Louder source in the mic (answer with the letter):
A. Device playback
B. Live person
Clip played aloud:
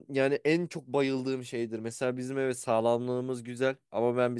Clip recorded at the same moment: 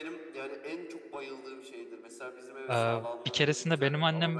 B